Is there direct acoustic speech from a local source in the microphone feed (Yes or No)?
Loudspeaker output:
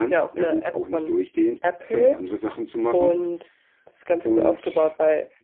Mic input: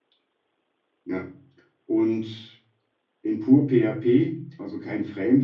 Yes